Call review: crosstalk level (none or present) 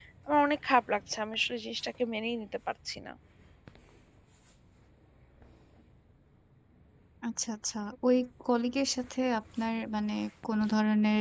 none